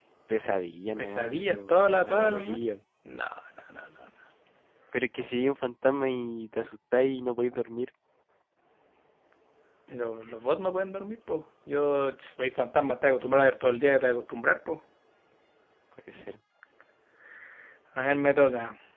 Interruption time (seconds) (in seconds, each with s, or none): 1.0 s